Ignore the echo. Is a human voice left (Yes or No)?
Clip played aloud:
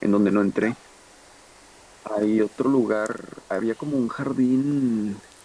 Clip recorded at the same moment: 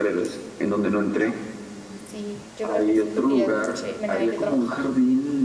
Yes